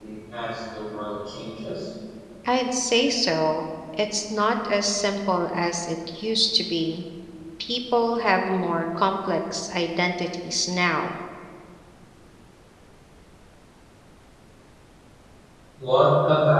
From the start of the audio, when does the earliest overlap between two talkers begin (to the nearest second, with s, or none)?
none